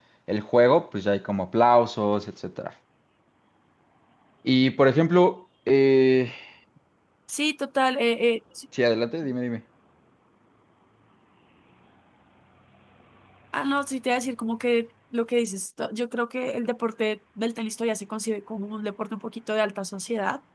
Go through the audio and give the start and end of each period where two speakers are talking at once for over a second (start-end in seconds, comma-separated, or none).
none